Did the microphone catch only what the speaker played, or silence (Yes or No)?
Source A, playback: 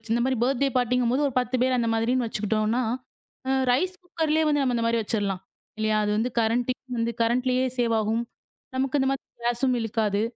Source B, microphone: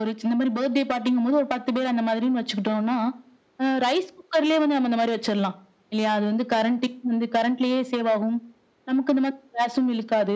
Yes